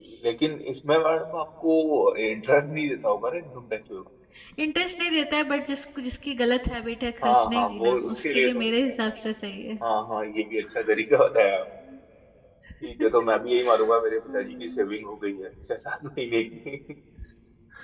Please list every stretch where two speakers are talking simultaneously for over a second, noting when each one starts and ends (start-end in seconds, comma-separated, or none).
7.2-8.9